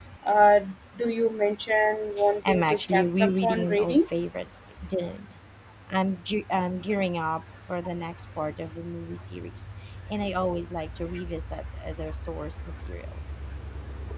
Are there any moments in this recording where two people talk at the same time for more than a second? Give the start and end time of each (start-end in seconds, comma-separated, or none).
2.5-4.1